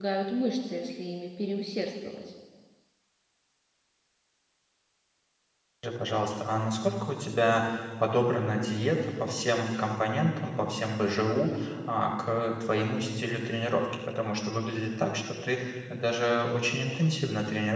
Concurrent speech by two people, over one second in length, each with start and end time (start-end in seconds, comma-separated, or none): none